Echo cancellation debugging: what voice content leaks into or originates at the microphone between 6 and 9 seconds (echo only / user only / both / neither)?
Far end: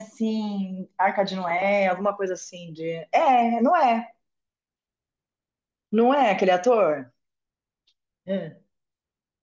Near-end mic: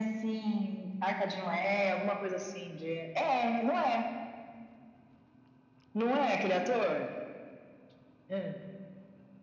echo only